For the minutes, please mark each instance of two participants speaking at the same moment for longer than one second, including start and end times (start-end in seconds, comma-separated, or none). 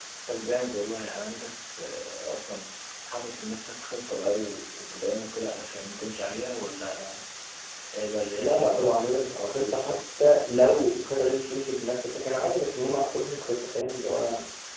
8.4-9.9